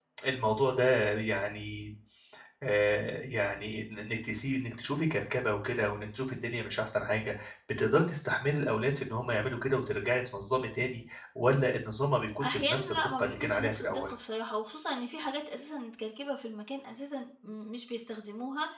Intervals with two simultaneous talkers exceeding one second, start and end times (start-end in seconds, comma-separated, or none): 12.4-14.1